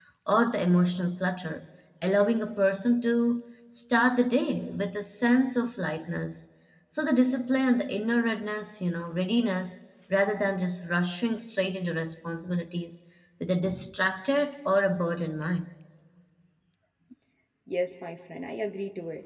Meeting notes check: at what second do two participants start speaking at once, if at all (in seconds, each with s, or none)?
none